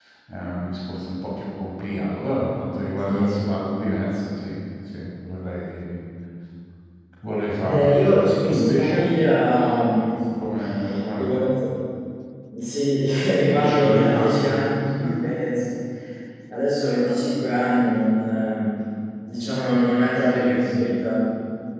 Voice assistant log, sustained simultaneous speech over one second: present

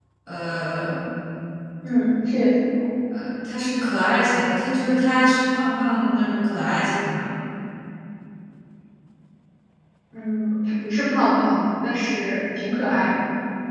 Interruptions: none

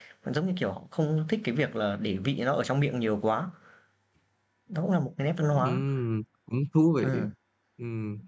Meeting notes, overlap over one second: none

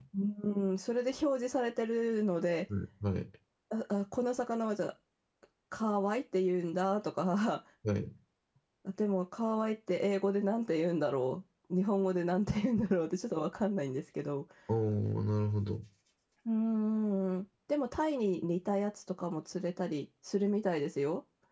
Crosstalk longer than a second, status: none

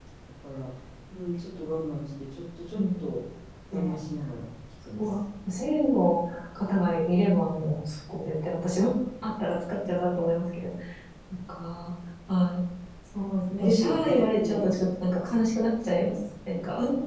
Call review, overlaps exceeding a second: present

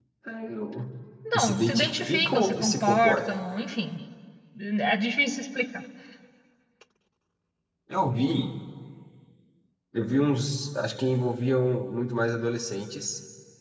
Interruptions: present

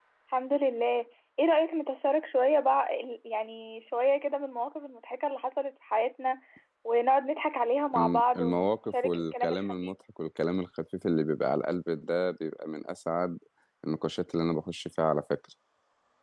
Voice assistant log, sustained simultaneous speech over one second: present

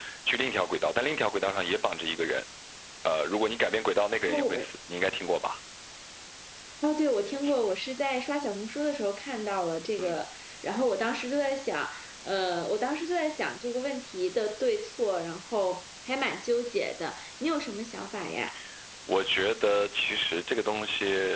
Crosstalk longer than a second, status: none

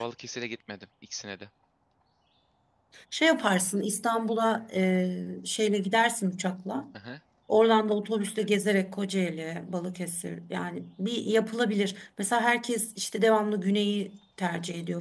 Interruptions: none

